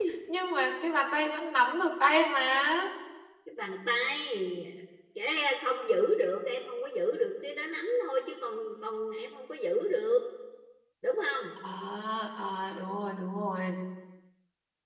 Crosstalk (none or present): none